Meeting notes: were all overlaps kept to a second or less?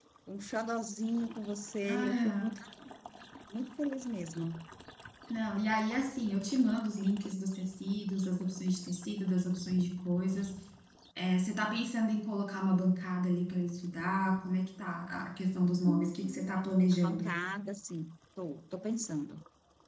No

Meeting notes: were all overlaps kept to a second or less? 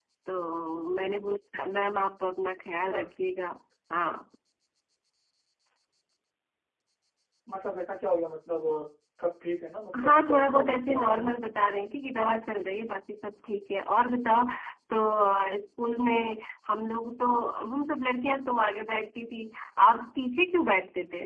No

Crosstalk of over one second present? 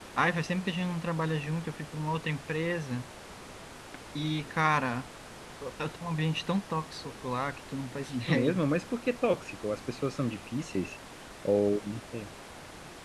No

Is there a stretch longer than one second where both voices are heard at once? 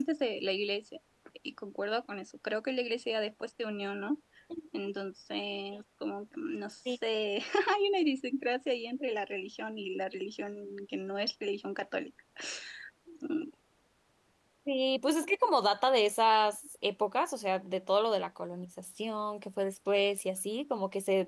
No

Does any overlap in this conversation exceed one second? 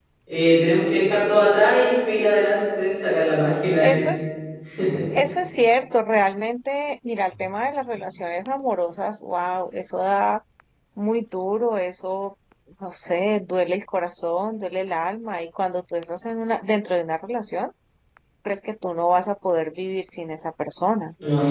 No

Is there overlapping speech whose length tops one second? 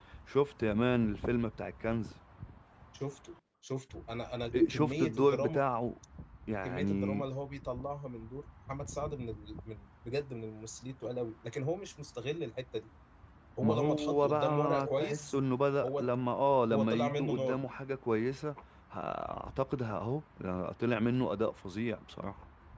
Yes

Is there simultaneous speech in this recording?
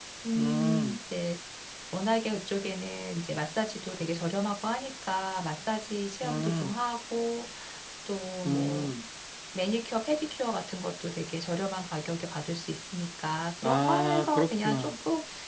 Yes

